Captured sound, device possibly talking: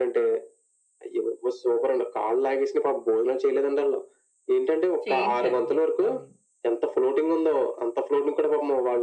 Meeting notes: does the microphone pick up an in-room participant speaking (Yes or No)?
Yes